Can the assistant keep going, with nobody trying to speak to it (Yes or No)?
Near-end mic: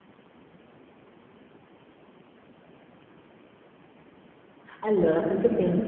No